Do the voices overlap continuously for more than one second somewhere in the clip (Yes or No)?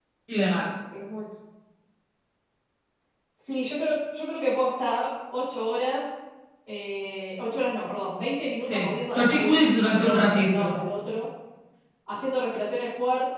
Yes